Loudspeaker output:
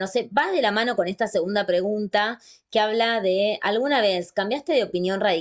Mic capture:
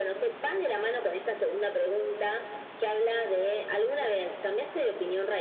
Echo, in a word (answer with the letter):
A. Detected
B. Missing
A